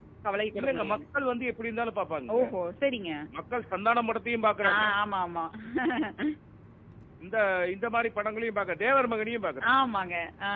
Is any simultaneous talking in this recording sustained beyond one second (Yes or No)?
No